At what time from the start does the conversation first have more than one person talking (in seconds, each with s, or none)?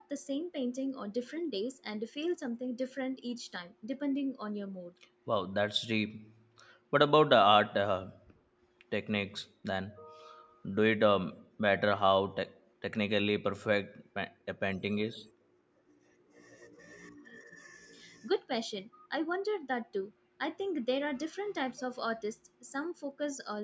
none